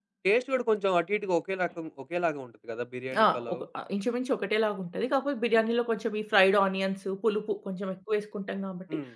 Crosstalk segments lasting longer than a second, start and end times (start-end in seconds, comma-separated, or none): none